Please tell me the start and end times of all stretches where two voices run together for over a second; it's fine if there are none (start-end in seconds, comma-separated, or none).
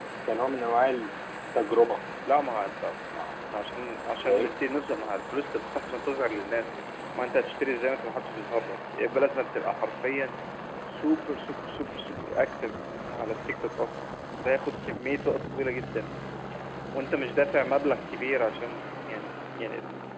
none